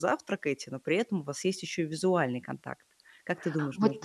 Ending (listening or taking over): taking over